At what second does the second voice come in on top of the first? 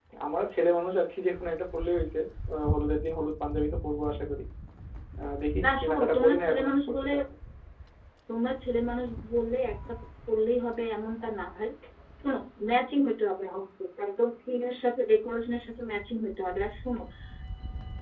5.6 s

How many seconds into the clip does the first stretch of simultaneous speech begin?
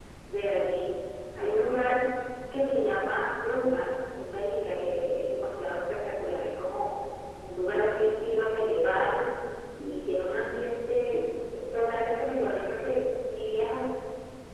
none

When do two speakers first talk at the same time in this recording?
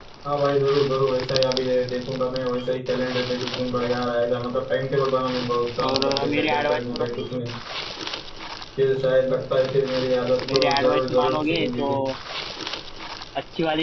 5.8 s

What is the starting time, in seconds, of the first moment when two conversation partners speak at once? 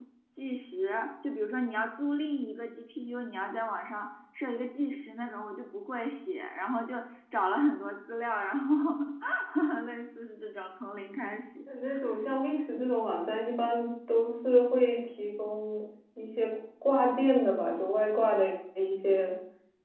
none

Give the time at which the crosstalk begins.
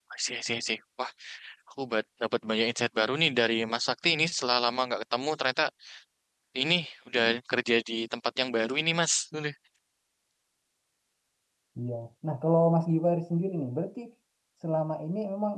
none

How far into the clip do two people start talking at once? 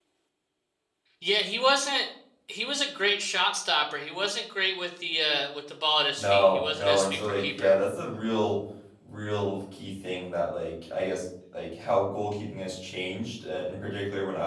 6.2 s

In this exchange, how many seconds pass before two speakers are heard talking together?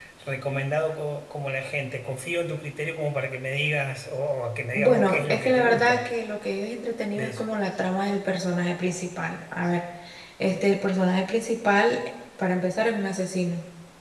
4.7 s

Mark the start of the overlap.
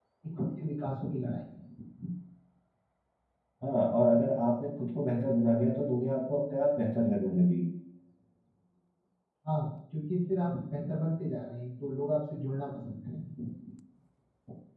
none

